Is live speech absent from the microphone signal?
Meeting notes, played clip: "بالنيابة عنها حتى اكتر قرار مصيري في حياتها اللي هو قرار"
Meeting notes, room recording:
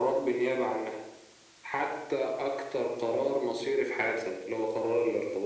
Yes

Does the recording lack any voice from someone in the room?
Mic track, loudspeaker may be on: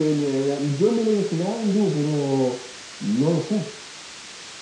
Yes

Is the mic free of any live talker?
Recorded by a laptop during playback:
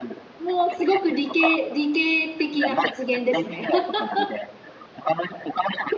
No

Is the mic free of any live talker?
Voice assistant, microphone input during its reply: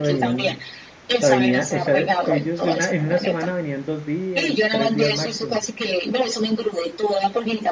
No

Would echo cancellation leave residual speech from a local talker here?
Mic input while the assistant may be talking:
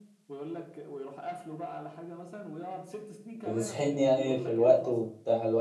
Yes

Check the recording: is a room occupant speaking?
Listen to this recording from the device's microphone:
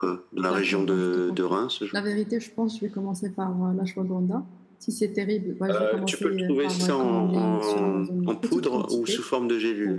Yes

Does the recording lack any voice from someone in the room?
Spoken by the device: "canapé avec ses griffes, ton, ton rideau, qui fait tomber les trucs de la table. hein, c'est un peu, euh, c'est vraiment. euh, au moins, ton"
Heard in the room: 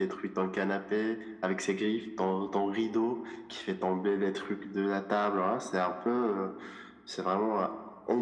Yes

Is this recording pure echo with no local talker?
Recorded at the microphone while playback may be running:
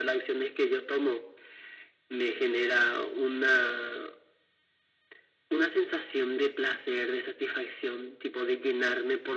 Yes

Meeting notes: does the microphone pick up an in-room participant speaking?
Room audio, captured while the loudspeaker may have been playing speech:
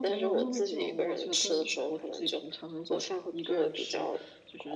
Yes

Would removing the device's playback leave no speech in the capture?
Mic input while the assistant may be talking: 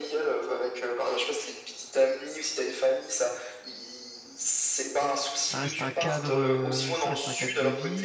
No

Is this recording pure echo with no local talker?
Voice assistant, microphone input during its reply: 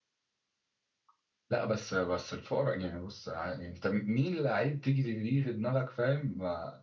Yes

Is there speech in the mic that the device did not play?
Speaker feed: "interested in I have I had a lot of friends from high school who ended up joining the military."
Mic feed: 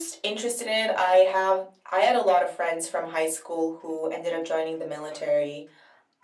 No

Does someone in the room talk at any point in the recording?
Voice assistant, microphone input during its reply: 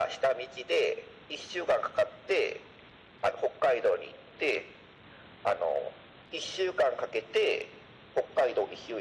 No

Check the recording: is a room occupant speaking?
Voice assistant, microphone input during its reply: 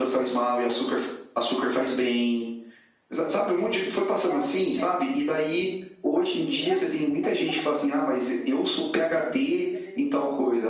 Yes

